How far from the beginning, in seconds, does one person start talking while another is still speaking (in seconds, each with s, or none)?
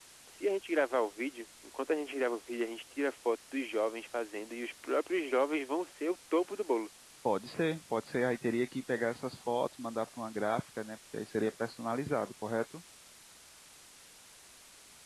none